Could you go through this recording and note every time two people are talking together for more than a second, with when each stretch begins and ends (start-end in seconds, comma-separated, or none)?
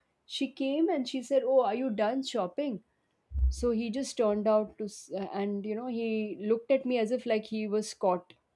none